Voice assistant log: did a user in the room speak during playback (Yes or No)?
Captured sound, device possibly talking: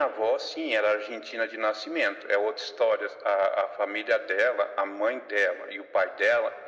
No